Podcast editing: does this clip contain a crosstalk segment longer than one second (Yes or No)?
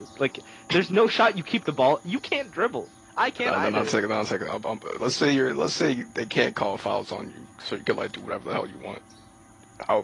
No